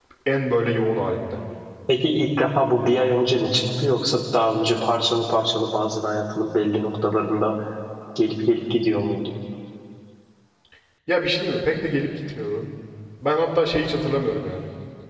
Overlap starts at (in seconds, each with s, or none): none